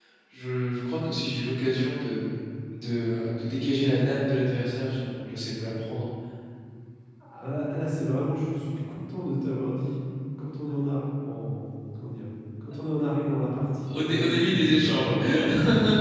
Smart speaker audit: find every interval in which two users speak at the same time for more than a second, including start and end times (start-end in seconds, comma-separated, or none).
13.9-15.1